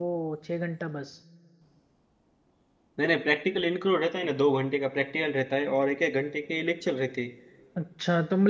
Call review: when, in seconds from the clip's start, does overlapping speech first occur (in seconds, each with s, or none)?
none